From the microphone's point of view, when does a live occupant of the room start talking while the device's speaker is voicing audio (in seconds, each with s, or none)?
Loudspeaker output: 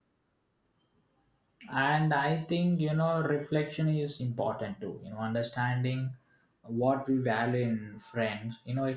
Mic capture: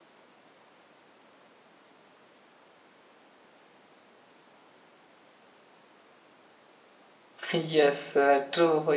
7.5 s